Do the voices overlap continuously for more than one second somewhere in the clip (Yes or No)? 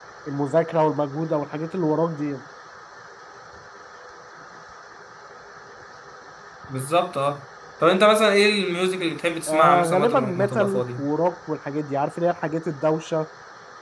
Yes